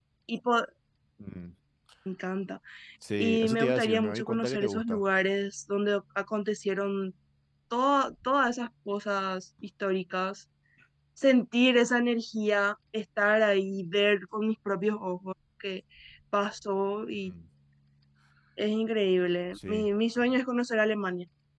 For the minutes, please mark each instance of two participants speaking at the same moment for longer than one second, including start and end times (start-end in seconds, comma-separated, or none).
3.2-5.0